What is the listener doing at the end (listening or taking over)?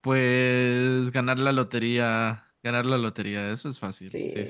taking over